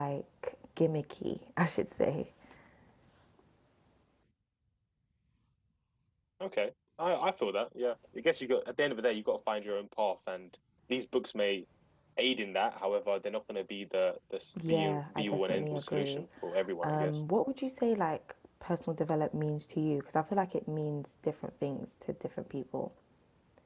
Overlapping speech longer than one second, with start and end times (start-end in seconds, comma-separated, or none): 14.7-16.2